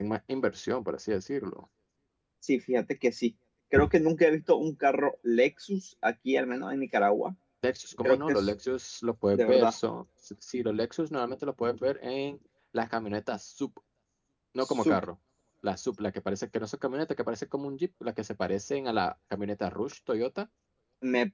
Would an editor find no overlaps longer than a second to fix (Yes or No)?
Yes